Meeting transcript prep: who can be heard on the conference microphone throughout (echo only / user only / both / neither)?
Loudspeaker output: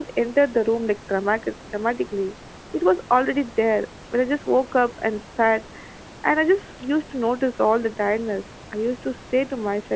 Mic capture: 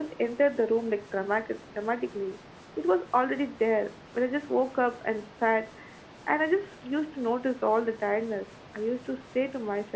echo only